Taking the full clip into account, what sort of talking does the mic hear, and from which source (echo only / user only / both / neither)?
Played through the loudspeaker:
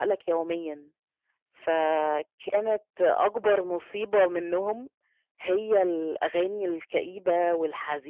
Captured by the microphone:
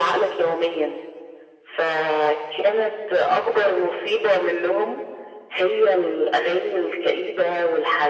echo only